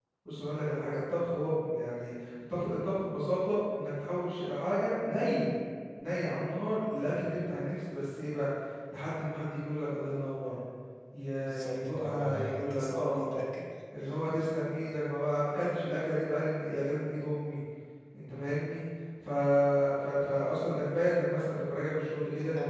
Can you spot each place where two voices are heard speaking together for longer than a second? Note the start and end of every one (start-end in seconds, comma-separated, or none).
11.7-13.3